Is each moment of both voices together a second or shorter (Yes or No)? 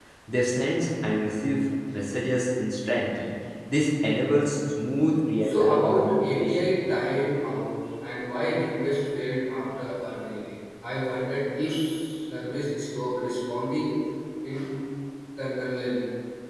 No